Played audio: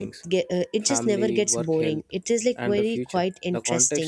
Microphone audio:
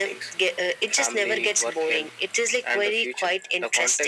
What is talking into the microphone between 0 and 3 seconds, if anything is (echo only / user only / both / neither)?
echo only